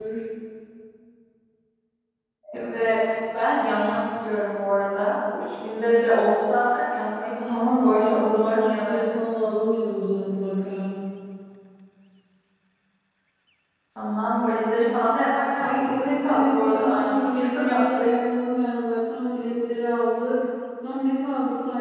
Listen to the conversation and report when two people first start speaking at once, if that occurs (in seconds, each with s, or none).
7.5 s